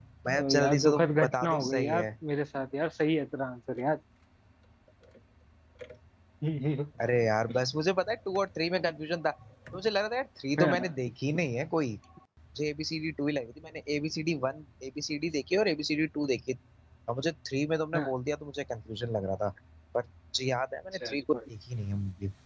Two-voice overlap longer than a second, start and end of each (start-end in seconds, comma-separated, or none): 0.6-2.1